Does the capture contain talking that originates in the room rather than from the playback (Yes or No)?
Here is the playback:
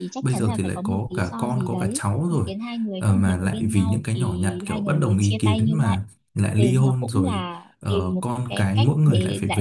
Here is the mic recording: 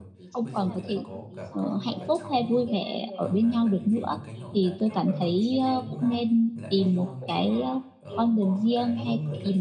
Yes